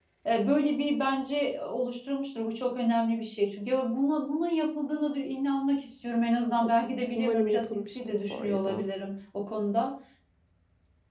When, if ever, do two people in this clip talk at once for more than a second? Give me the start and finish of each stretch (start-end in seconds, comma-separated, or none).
7.2-8.9